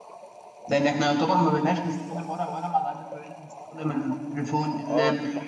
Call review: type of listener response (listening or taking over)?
taking over